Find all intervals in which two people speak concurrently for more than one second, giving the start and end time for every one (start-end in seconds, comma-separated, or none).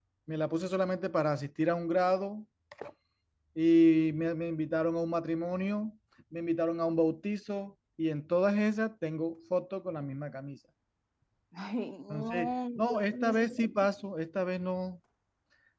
12.1-13.7